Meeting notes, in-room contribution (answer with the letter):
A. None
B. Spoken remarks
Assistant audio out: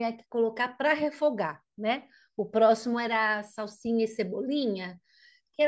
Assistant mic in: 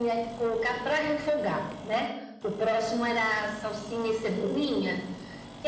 A